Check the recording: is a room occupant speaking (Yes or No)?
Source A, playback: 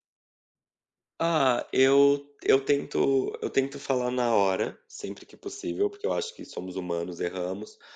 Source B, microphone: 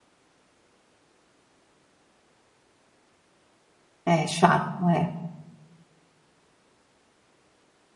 Yes